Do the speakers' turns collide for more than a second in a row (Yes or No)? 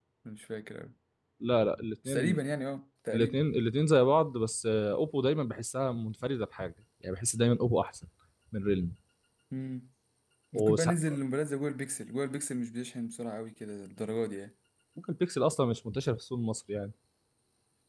No